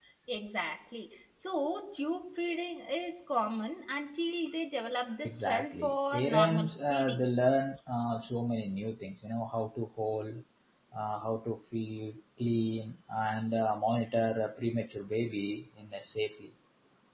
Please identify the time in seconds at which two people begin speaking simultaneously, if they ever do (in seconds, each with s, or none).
5.2 s